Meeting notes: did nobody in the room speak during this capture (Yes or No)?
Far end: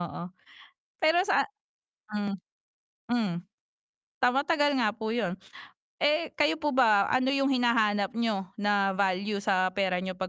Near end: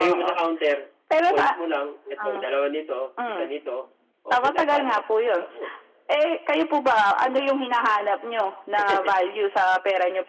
No